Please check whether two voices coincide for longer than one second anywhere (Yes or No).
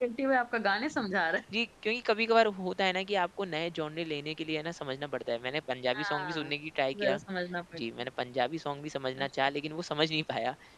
No